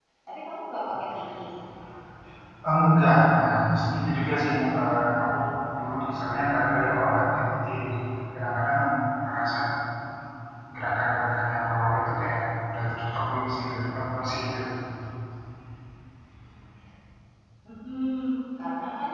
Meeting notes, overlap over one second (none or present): none